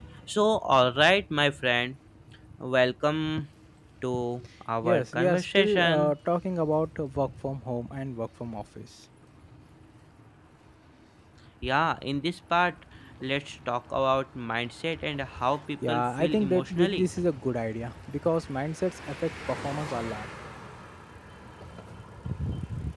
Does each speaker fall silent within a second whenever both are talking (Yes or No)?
No